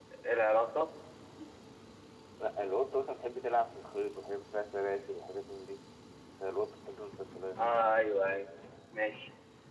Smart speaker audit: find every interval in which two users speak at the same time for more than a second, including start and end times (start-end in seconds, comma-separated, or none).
none